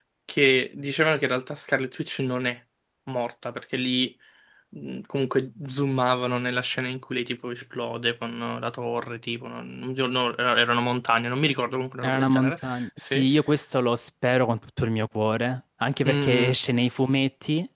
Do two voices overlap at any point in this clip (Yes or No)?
Yes